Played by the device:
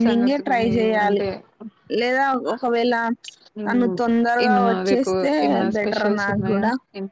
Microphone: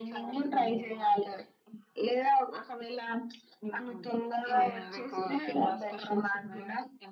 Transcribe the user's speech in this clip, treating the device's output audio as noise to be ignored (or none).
none